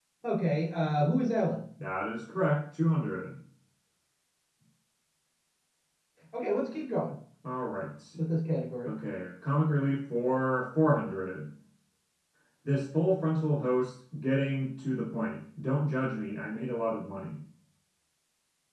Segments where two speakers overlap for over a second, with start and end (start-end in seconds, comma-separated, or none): none